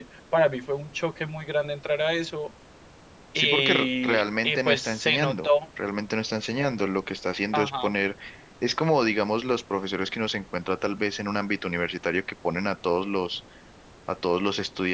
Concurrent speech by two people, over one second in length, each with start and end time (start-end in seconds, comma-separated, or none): 3.4-5.5